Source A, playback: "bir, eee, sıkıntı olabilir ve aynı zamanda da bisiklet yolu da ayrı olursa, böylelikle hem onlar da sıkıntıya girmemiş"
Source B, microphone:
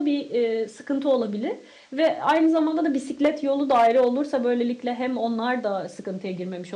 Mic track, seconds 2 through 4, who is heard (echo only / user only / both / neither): echo only